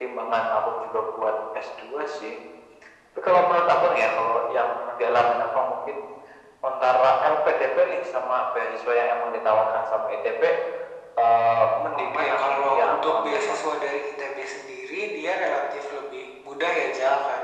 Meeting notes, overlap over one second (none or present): present